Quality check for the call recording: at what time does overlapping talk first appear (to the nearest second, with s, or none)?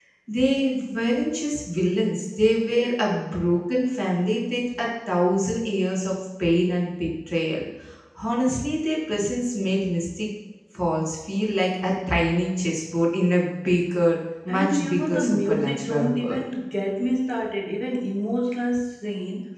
14 s